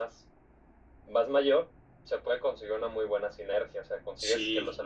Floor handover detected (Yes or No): No